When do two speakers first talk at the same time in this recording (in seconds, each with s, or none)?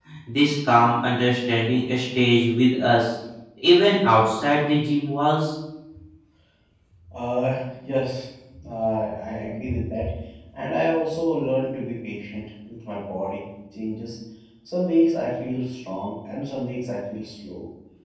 none